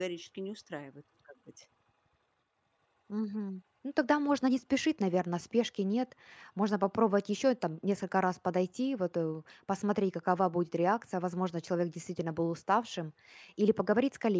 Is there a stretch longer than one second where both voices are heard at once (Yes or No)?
No